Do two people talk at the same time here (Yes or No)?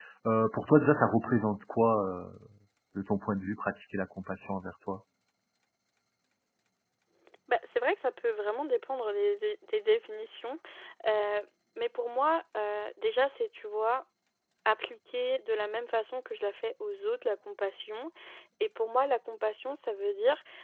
No